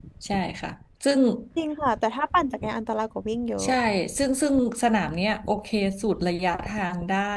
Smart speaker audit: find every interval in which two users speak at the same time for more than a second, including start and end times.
none

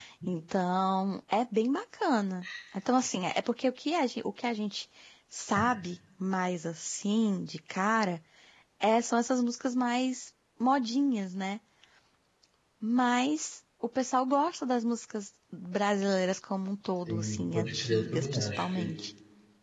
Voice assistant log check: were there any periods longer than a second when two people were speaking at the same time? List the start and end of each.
17.1-18.9

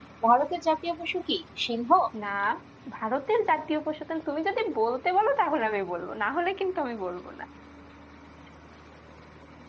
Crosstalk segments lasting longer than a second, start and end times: none

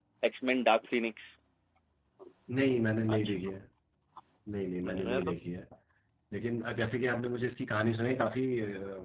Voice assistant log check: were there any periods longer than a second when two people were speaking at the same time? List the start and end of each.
none

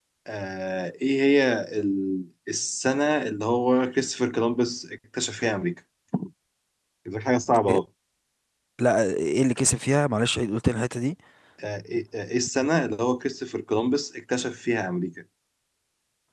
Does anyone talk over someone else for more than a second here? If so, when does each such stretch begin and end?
none

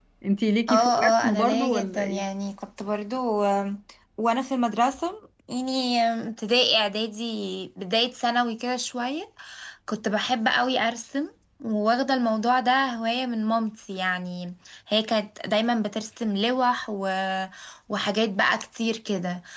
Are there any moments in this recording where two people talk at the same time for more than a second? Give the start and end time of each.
0.7-2.2

